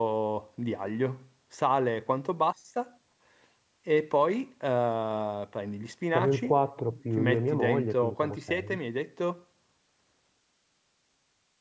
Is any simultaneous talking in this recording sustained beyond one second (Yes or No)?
Yes